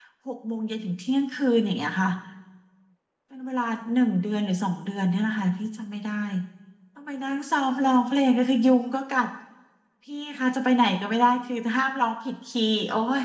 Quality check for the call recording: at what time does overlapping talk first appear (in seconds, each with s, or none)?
none